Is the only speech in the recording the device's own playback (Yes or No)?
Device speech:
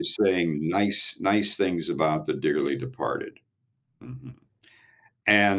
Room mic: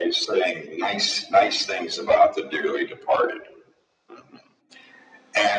Yes